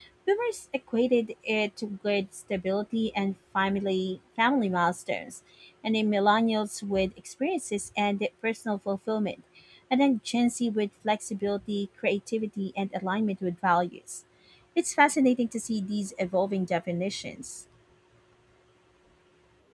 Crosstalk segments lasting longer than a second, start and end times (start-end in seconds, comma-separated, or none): none